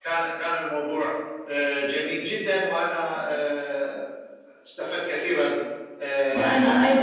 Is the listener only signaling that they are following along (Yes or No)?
No